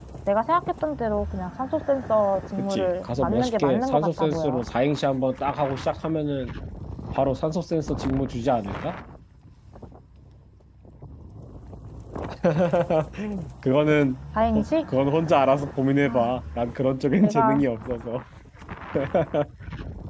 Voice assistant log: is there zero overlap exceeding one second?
No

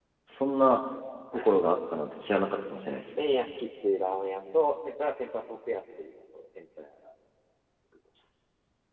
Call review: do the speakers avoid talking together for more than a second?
Yes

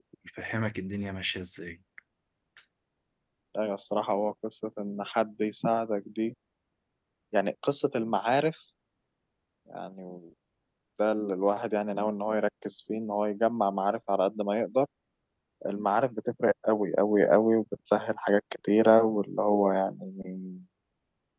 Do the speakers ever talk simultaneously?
No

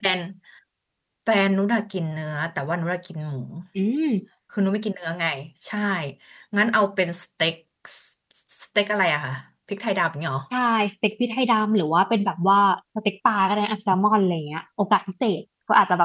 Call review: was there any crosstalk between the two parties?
No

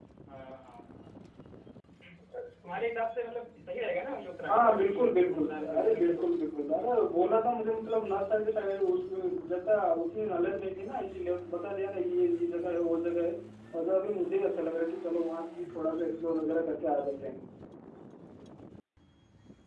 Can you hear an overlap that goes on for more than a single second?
Yes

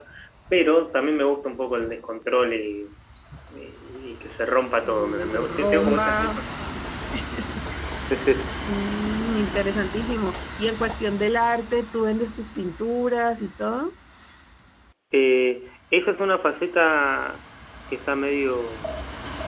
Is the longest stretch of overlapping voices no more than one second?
No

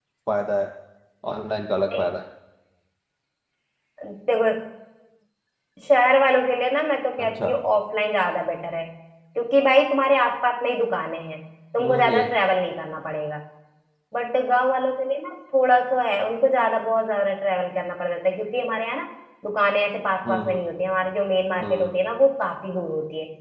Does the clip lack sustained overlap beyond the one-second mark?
Yes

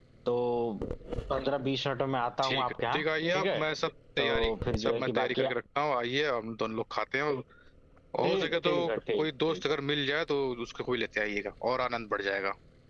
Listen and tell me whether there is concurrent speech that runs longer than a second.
Yes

